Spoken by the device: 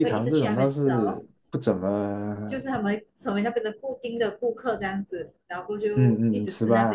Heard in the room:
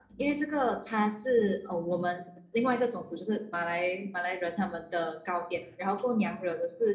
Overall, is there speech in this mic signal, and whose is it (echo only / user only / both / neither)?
user only